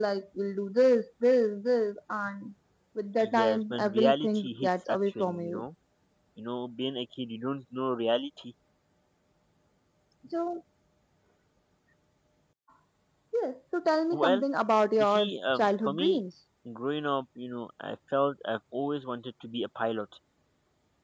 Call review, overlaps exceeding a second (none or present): present